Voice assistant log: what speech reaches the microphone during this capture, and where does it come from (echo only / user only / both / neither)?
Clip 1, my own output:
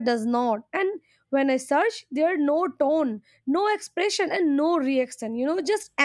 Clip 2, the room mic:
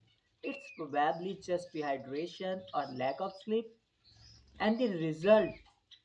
user only